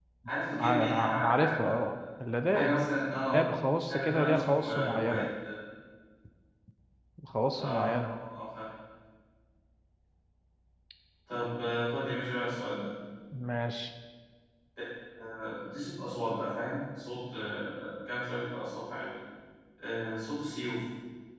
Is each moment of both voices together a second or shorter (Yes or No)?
No